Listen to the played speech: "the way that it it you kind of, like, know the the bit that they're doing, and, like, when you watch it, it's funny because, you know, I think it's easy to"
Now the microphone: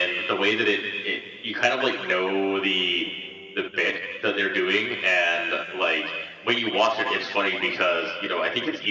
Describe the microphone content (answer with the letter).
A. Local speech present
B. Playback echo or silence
B